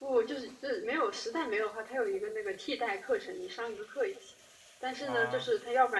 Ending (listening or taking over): listening